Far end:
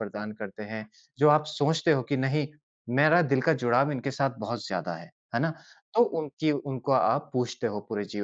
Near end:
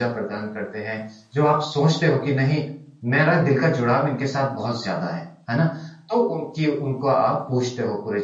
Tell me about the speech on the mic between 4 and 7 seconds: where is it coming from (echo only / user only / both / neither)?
echo only